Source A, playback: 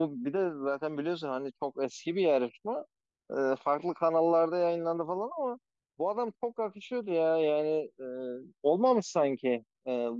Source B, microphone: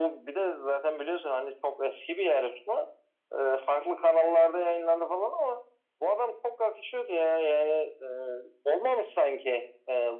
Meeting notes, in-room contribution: none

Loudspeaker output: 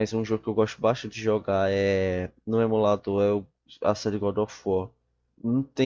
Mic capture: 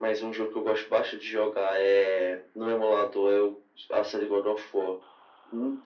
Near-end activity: none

